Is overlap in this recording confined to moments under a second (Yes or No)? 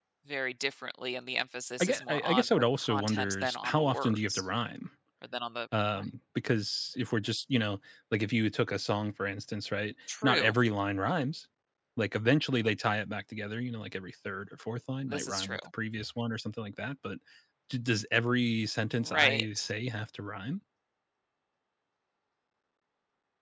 No